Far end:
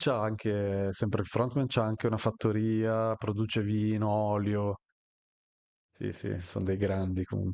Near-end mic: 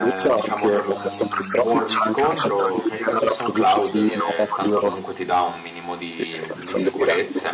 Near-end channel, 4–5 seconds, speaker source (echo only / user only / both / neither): both